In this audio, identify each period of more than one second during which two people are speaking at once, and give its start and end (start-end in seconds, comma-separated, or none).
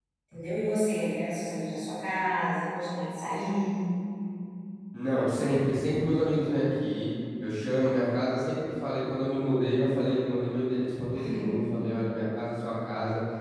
none